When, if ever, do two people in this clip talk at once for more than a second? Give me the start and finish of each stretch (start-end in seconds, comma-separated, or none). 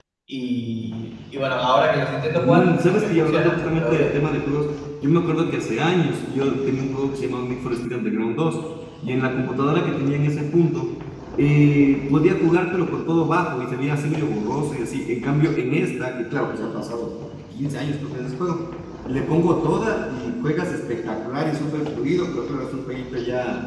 2.4-4.1